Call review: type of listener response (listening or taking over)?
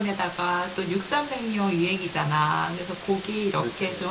listening